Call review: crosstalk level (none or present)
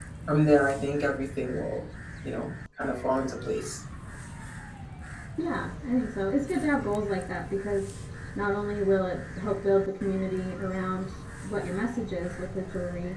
none